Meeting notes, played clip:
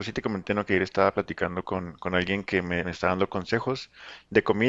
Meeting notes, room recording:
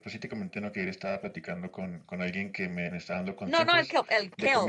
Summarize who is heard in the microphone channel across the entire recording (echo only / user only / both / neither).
both